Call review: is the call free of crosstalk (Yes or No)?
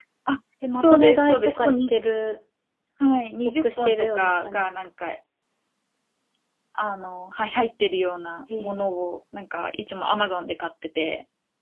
No